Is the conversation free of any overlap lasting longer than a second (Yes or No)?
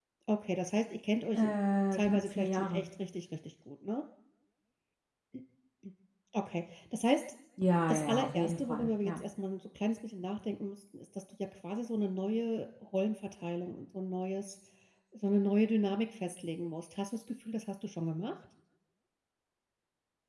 No